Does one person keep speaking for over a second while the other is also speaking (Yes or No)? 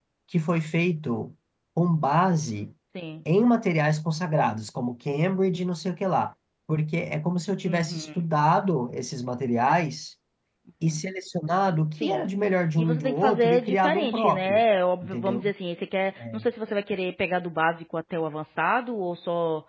Yes